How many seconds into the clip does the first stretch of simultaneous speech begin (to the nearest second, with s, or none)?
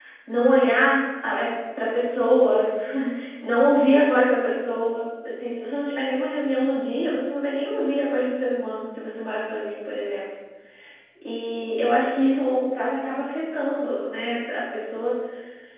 none